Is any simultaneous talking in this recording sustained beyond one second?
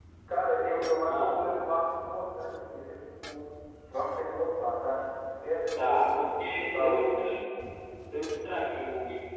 Yes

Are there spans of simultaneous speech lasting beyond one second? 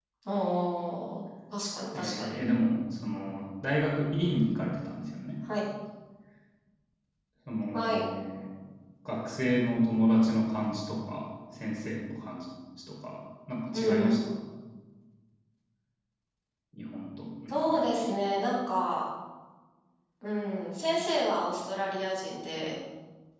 No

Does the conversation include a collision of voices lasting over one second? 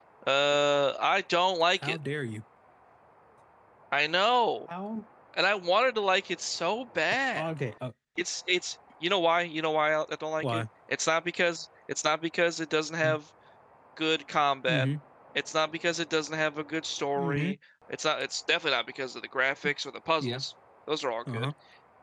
No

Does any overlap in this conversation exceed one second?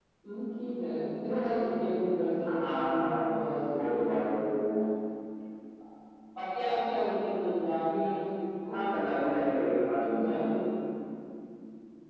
Yes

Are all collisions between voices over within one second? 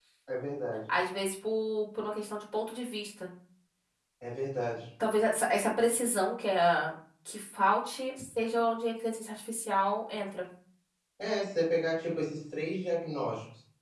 Yes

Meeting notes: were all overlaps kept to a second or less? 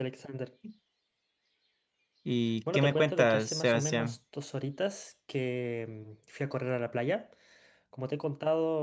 No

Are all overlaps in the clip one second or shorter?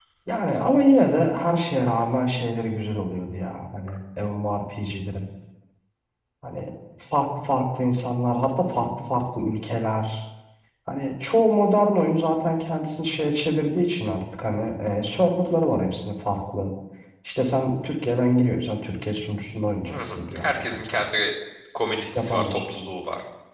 No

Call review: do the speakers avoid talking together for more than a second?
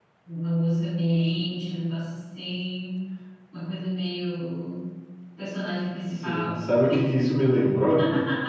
Yes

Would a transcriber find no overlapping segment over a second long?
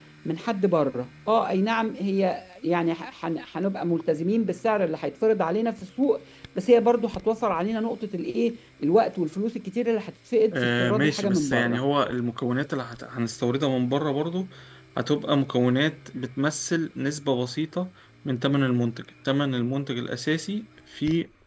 No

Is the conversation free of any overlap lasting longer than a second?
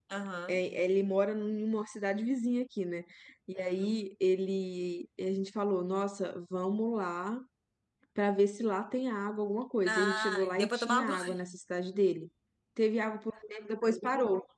No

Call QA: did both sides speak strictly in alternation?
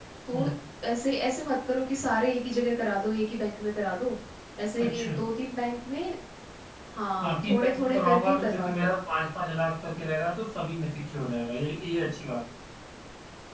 No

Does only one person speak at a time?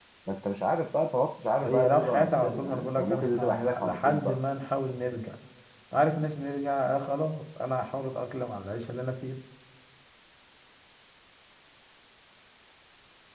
No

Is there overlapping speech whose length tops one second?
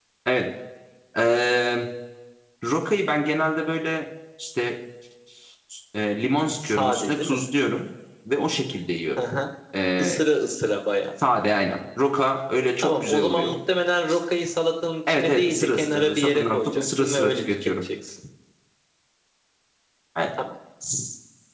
Yes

